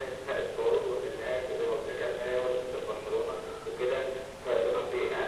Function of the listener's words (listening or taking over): listening